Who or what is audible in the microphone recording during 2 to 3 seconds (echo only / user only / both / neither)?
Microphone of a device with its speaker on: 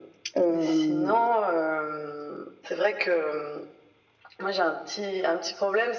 echo only